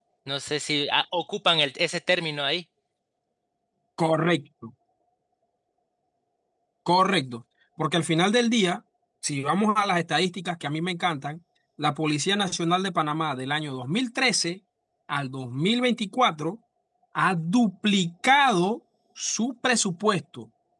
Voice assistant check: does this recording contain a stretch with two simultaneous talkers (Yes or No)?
No